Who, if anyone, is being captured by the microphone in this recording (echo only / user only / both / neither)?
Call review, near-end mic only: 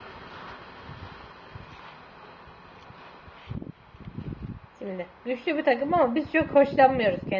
user only